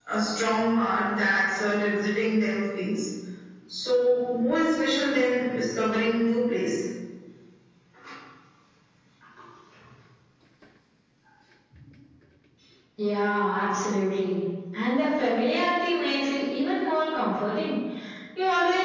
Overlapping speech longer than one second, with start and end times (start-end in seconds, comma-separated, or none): none